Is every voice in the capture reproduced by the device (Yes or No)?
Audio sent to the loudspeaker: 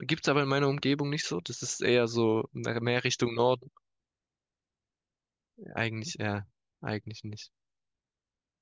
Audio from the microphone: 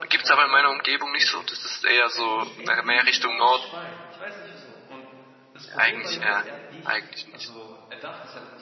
No